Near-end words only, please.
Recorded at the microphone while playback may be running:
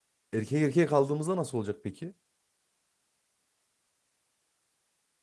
Erkek erkeğe kaldığımızda nasıl olacak peki?

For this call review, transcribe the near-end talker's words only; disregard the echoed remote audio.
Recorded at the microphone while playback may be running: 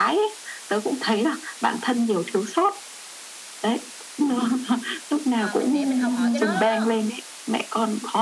mà mình để mình học hỏi cái đó lắm á

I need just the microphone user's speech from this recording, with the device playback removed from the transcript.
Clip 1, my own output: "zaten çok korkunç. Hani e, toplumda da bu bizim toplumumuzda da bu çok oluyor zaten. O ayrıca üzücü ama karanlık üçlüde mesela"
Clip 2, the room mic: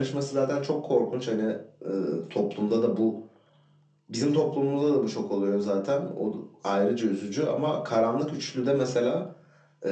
none

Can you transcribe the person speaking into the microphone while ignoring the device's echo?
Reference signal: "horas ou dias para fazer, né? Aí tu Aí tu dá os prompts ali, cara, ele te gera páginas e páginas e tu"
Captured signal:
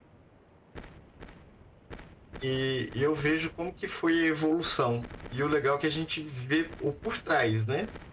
E, e eu vejo como que foi a evolução. E o legal é que a gente vê o por trás, né?

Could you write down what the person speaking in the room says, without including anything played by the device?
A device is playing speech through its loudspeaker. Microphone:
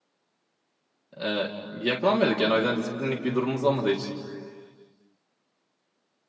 E, yakalanmıyorduk yani o yüzden disiplinlik bir durumumuz olmadı hiç.

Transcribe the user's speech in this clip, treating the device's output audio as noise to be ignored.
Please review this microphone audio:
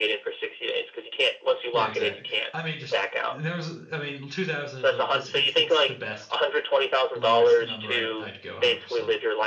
Yeah, exactly. I mean, just there was. I mean, 2000 is a it's it's it's the best lowest number I'd I'd go 100%.

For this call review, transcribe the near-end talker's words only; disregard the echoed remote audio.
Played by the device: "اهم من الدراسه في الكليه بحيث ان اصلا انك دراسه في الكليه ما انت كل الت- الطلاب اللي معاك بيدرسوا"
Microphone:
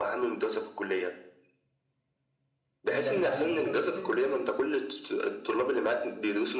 ان ده متعلم اكتر من التاني

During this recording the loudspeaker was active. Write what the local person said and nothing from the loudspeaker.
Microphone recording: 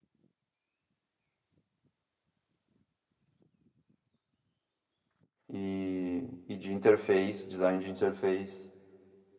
e, e de interface, design de interface.

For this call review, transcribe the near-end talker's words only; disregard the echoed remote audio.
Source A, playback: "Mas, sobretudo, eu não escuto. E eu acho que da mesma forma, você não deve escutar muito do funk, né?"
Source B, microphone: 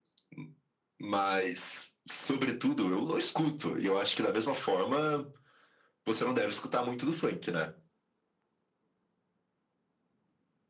none

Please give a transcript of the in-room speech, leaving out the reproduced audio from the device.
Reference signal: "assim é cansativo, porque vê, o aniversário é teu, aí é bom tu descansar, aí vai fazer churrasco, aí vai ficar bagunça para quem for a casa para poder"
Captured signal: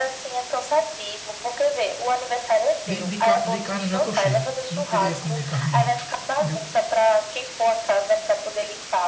De, de, ca- de carne eu já tô cheio. Não queria comer carne, não. Entendeu?

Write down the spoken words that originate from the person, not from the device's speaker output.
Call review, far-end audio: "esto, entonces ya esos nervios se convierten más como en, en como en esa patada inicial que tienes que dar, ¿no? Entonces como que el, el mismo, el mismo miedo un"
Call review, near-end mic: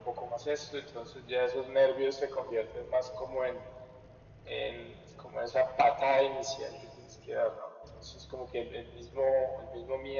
none

